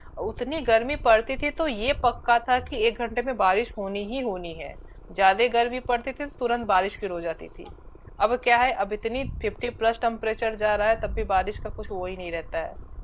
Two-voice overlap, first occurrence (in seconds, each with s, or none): none